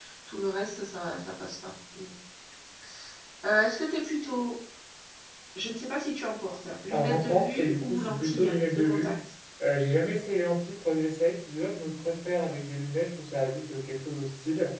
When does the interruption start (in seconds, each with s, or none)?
6.9 s